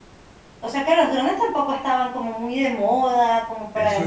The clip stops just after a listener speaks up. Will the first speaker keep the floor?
No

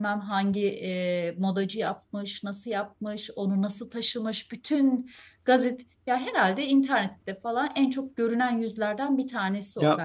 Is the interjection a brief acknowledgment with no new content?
No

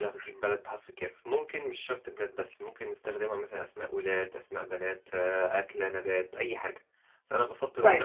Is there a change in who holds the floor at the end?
No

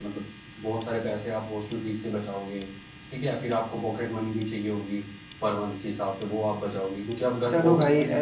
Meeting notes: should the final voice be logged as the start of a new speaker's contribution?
Yes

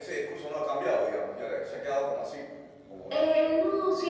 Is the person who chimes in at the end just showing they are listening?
No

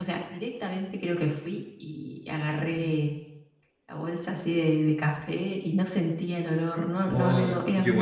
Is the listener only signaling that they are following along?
No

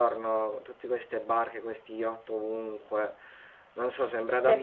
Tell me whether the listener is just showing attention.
Yes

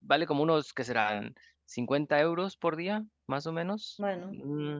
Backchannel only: Yes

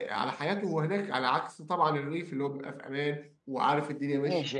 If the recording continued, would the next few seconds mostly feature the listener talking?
Yes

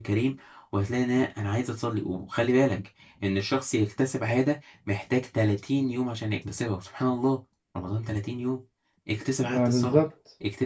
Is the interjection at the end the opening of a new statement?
No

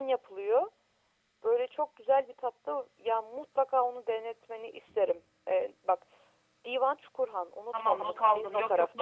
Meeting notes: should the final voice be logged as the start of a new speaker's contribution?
Yes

